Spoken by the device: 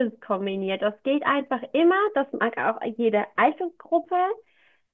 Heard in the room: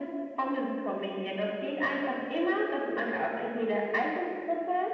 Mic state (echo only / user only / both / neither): echo only